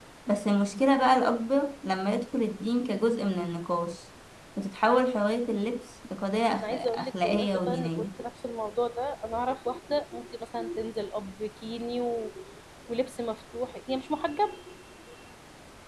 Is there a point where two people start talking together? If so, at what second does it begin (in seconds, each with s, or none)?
6.6 s